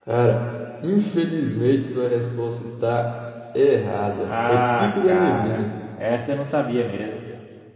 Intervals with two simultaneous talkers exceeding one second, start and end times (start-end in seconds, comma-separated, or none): 4.3-5.7